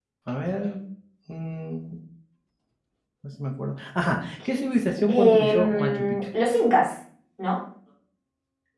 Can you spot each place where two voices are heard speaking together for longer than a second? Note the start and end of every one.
4.5-6.2

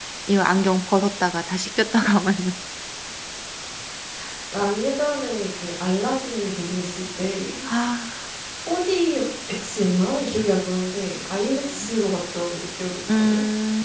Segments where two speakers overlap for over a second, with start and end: none

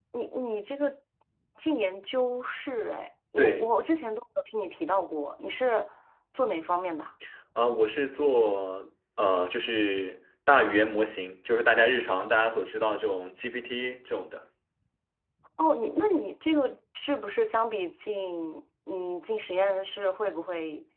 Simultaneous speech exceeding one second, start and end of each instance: none

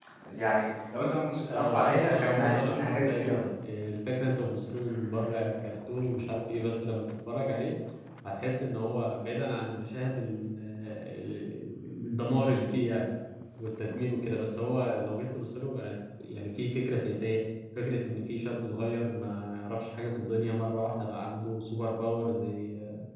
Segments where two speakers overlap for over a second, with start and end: 1.5-3.4

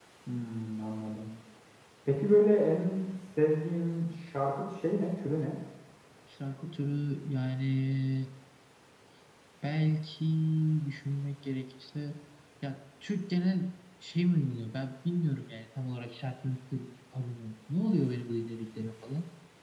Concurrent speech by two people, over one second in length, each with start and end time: none

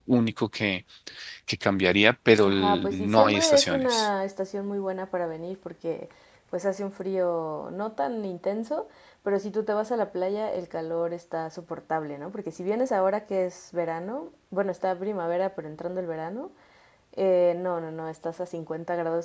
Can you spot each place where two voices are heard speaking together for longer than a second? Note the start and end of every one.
2.4-4.1

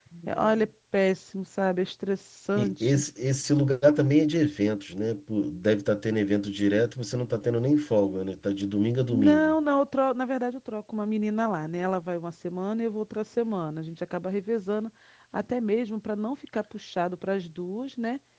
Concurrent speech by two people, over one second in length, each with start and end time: none

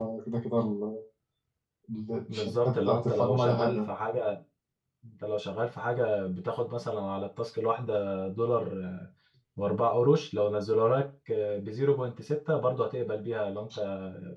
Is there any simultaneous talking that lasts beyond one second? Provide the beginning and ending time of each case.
2.3-3.9

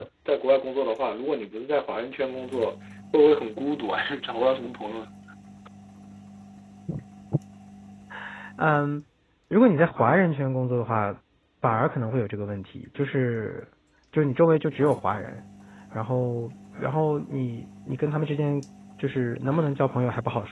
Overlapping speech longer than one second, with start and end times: none

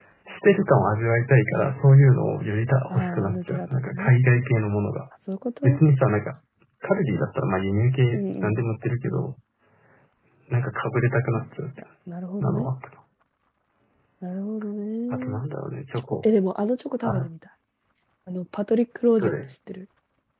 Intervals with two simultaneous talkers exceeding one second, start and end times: 2.9-4.1

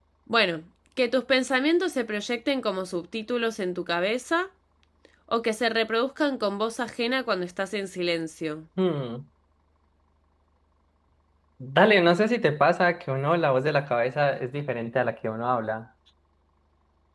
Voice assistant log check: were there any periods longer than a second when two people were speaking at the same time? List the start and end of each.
none

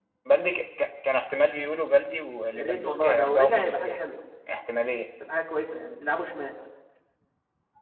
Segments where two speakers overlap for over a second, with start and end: 2.5-4.0

